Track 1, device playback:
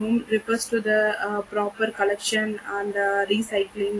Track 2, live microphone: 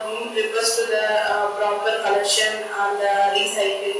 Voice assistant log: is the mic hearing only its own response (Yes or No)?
Yes